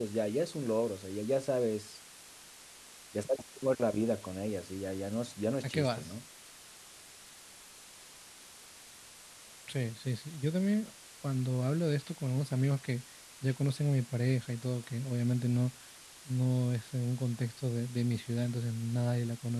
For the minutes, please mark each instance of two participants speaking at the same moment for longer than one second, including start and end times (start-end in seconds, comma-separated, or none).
none